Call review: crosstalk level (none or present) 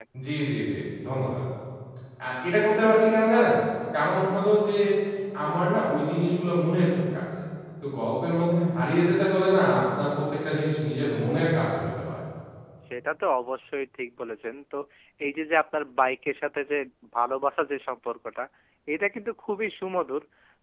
none